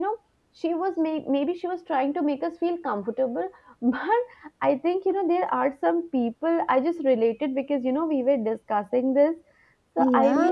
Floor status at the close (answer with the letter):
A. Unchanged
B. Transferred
A